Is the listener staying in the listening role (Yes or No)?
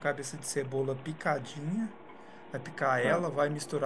Yes